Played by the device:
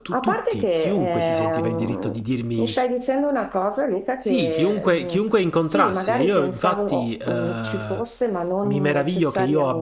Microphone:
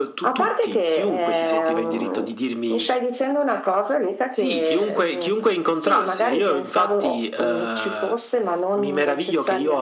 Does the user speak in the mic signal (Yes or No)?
No